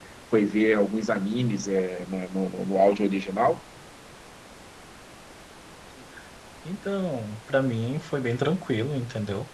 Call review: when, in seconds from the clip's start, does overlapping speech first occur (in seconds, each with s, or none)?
none